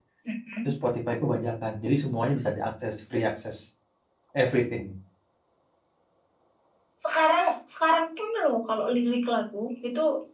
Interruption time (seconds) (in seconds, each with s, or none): none